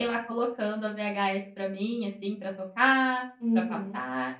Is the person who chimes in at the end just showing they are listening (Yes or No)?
No